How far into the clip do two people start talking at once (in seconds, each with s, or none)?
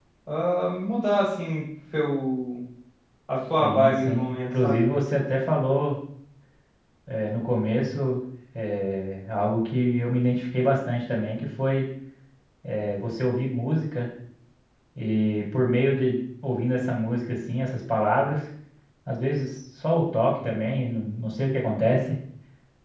3.6 s